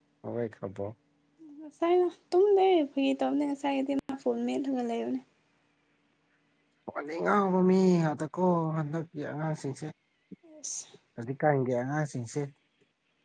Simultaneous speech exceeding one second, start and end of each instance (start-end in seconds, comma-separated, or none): none